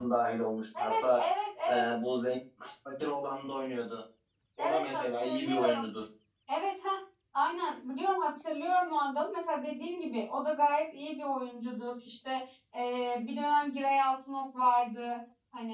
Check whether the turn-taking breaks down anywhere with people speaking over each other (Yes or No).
Yes